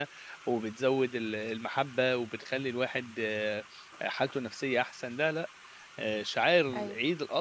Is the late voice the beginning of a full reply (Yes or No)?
No